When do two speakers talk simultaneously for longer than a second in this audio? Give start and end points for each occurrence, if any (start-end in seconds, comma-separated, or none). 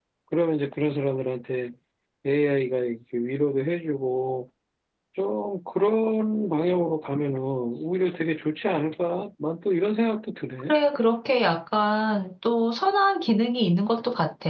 none